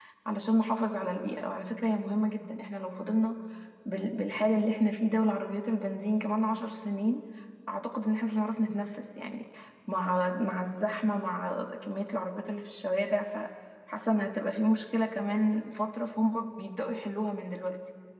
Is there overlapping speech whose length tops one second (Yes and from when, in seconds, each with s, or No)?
No